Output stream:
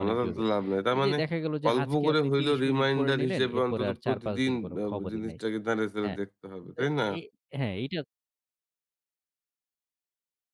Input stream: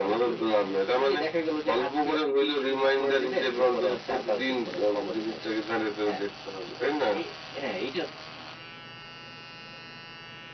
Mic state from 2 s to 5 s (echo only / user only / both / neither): echo only